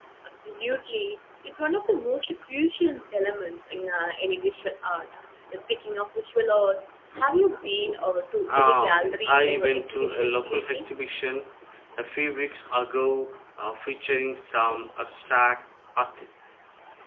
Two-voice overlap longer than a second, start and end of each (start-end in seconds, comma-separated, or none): 8.5-10.9